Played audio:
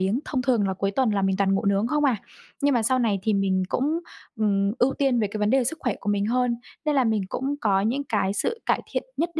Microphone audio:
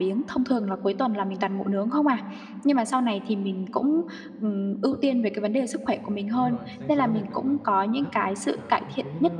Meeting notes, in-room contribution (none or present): present